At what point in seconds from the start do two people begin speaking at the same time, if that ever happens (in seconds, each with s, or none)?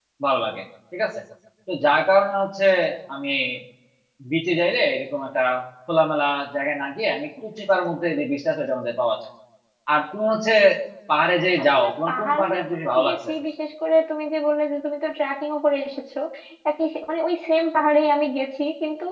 11.6 s